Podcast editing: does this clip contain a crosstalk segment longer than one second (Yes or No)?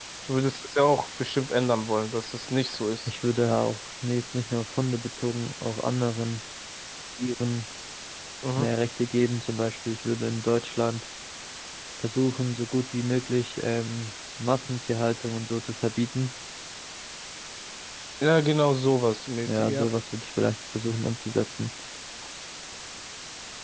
No